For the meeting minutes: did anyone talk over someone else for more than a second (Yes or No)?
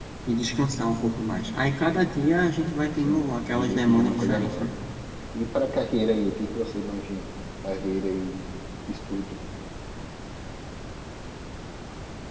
Yes